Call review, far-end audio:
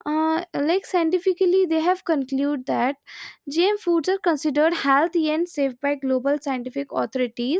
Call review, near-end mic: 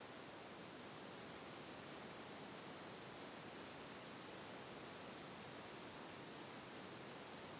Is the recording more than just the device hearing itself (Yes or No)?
No